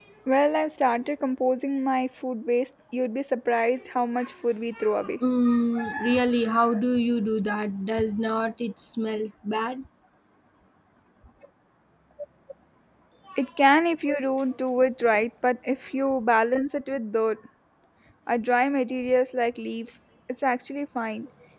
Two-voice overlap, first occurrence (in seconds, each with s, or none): none